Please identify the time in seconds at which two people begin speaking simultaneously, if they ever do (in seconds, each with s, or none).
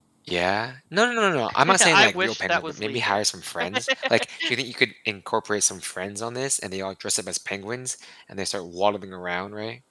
1.5 s